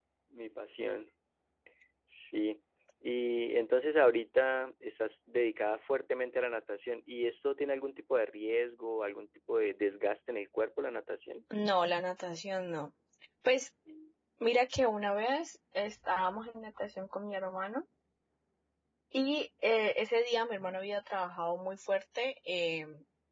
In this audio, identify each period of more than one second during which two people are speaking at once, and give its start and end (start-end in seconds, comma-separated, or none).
none